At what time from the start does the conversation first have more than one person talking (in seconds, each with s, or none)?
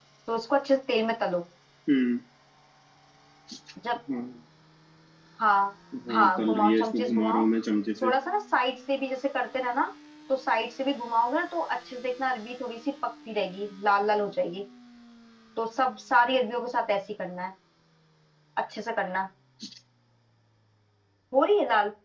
6.1 s